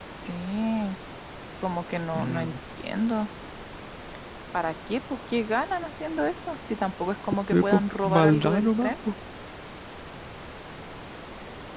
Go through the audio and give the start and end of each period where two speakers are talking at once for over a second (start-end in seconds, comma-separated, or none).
7.5-8.9